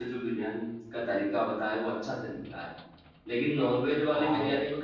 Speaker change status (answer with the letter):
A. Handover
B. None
B